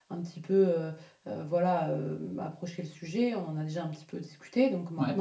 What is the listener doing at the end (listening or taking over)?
listening